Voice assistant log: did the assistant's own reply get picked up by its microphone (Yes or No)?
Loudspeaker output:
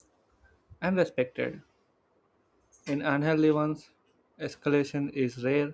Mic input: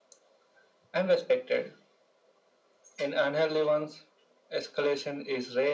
Yes